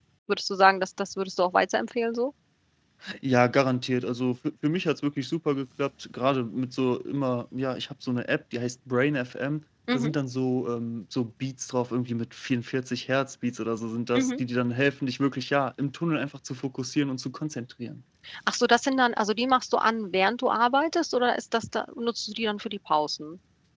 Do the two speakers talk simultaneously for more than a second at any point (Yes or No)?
No